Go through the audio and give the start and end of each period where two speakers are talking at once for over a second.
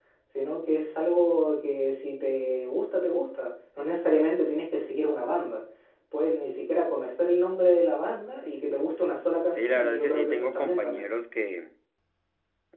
9.6-11.1

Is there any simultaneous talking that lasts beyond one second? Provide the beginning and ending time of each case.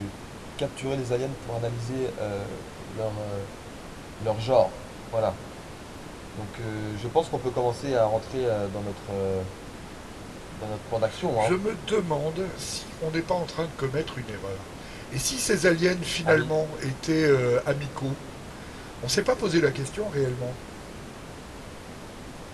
none

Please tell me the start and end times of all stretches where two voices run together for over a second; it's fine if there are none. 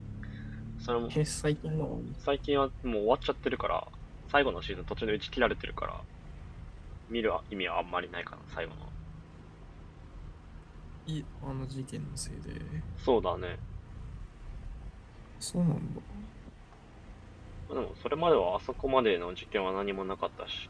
none

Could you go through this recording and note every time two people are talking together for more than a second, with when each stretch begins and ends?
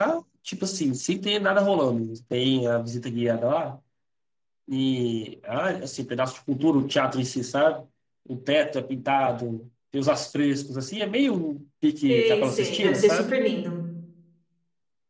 12.1-13.4

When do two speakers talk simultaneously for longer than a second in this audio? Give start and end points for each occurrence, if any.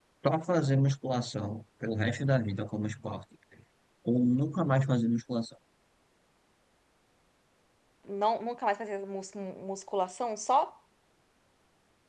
none

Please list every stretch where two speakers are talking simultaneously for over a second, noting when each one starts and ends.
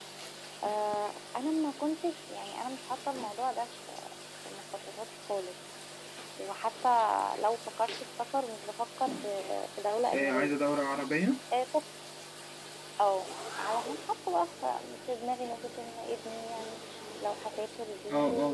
none

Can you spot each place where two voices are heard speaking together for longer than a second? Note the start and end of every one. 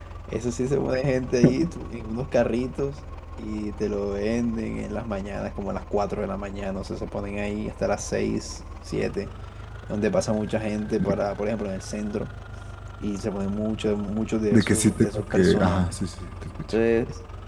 14.5-16.0

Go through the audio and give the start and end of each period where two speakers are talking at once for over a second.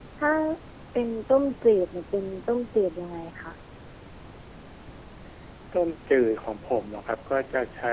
none

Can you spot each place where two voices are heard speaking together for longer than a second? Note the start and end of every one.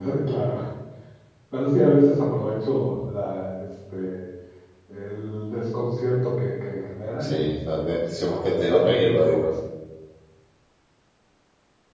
7.2-9.6

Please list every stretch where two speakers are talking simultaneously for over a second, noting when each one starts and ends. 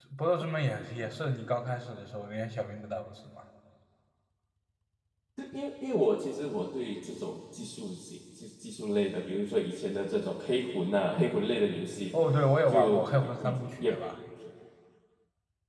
12.7-13.9

